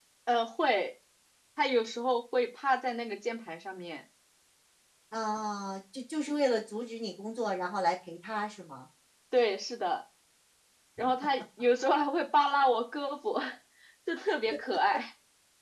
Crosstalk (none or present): none